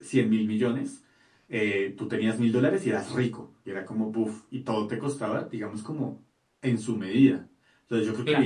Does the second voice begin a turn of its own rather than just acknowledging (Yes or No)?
No